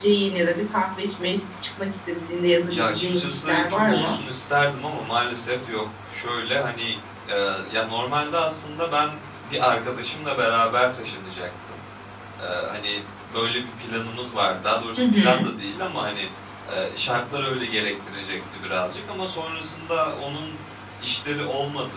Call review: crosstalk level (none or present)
present